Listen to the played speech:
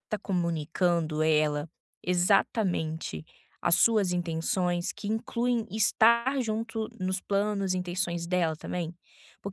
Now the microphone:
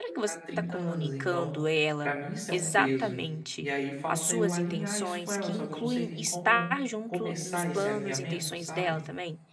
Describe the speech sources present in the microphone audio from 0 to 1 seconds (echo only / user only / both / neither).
both